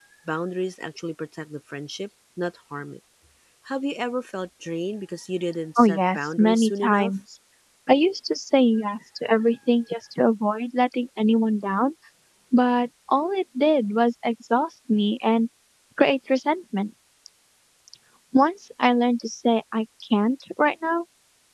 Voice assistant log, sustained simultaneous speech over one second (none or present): present